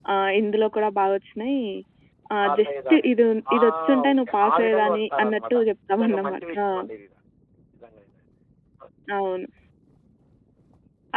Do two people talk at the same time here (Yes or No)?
Yes